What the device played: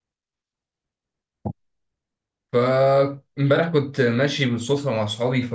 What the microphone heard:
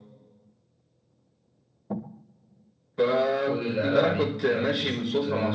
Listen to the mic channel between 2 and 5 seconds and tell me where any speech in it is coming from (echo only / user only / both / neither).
both